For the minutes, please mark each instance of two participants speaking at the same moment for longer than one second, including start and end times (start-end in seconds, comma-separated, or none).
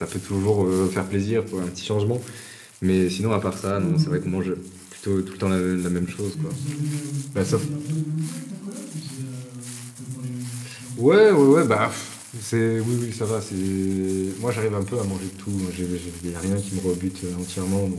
none